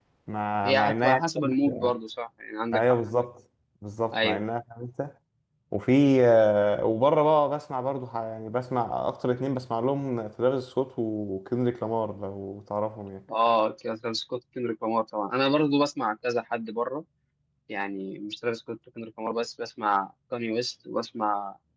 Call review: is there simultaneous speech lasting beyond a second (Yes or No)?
Yes